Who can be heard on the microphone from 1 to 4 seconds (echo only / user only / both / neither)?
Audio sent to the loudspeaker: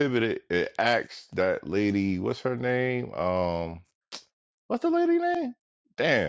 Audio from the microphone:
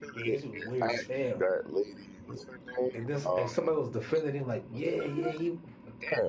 both